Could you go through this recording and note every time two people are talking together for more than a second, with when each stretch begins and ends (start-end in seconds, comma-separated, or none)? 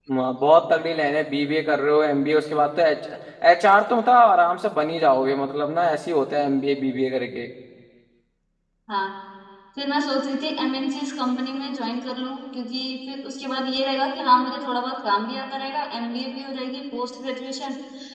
none